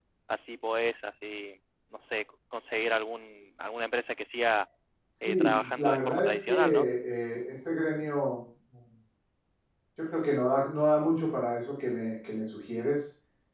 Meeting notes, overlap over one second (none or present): present